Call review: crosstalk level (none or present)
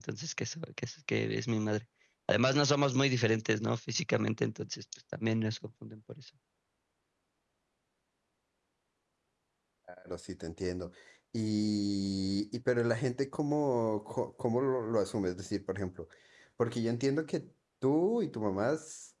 none